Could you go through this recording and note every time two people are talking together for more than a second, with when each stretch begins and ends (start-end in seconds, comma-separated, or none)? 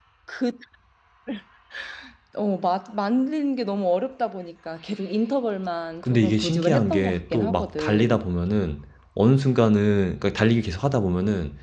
6.1-8.2